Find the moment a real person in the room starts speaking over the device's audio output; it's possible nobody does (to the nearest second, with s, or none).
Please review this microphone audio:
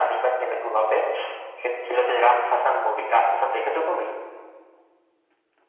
none